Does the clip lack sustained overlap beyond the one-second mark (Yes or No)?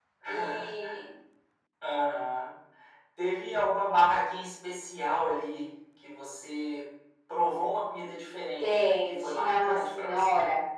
No